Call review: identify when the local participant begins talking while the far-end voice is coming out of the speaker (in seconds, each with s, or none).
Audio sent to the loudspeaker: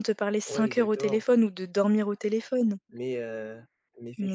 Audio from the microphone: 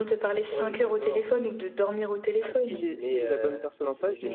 2.4 s